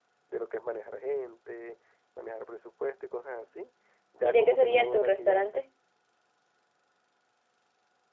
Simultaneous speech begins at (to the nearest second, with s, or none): 4 s